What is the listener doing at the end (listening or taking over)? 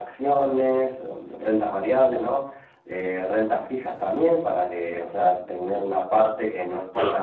taking over